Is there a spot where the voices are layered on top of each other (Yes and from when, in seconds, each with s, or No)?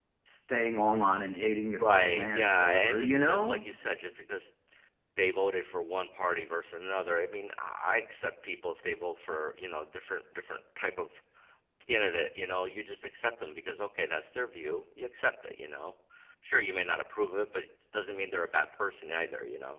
Yes, from 1.8 s